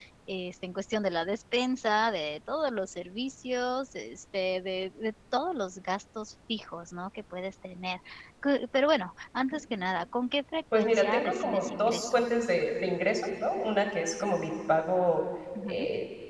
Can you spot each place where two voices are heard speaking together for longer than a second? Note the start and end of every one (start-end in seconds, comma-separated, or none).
10.7-12.2